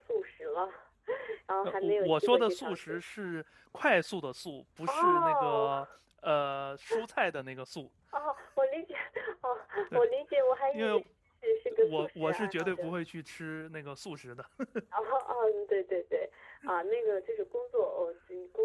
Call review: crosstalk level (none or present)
present